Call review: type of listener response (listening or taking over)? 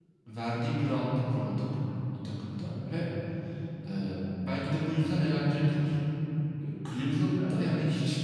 listening